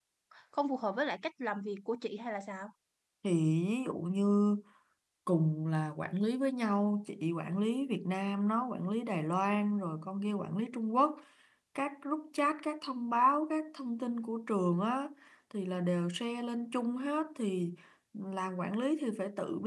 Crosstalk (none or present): none